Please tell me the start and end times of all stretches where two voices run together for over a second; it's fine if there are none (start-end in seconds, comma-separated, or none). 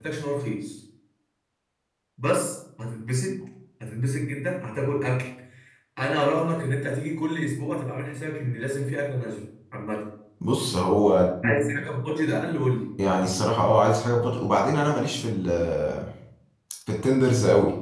none